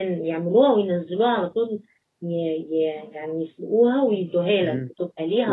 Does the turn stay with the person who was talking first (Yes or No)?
No